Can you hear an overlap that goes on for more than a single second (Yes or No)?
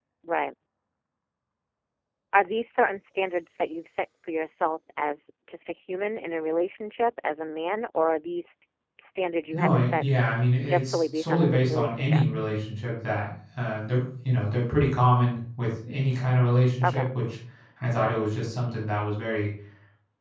Yes